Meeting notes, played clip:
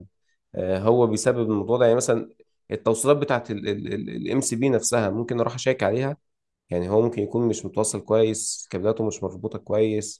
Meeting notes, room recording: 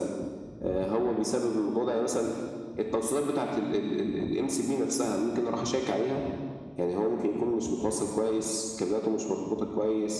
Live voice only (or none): none